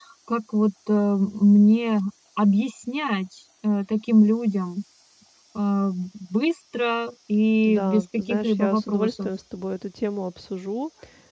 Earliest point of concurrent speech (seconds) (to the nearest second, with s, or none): 8 s